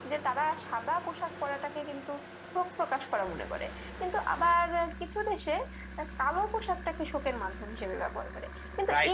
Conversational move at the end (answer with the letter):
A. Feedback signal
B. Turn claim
B